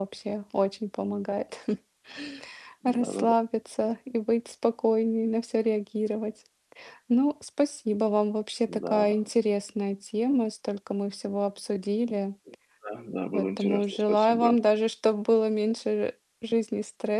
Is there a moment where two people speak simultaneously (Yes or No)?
Yes